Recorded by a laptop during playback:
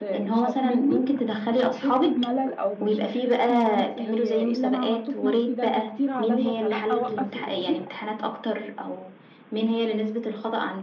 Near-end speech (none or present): none